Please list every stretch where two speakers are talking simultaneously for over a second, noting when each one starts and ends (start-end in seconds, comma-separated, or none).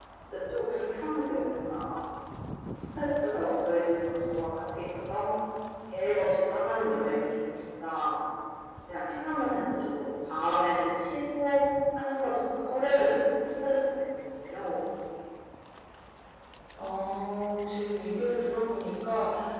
none